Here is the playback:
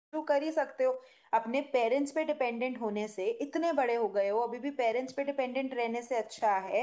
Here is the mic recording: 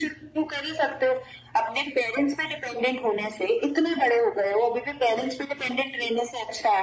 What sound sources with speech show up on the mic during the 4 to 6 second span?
echo only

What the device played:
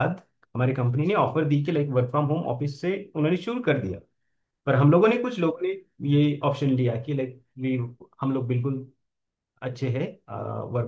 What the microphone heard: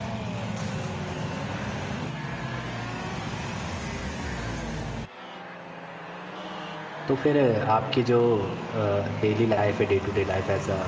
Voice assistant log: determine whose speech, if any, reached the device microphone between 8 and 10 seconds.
user only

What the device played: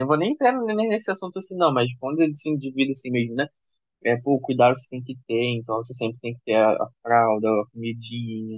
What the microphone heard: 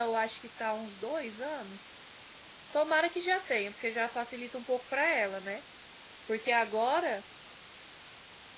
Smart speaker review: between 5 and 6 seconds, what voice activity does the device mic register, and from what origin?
user only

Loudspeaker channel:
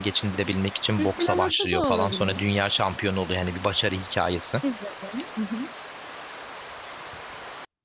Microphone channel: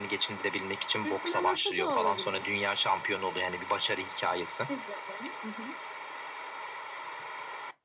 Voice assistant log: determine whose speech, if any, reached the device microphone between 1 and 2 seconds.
echo only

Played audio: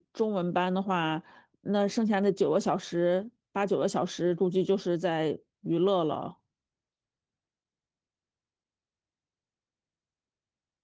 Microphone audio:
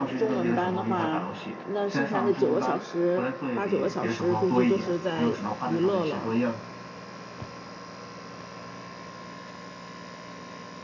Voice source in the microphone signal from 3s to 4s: both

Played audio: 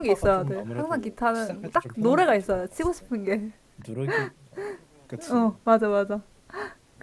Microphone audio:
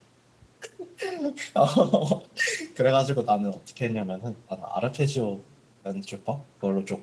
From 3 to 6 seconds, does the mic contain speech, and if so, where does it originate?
user only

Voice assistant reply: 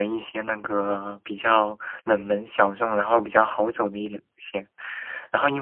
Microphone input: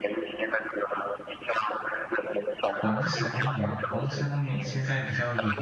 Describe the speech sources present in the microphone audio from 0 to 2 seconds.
echo only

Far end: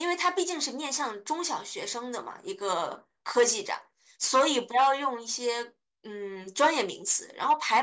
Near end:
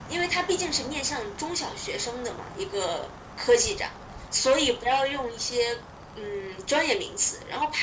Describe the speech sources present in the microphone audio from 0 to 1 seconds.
echo only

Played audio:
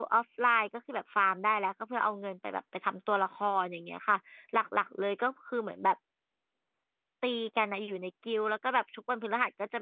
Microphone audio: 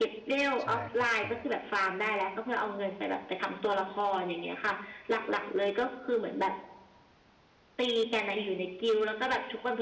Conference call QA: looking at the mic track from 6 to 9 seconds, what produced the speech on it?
echo only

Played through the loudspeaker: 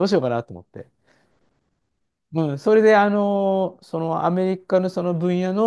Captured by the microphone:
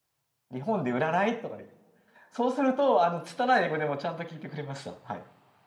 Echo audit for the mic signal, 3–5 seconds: user only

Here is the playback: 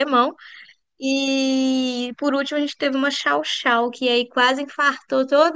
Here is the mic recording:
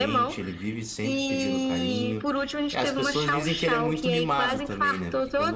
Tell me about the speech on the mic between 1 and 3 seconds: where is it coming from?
both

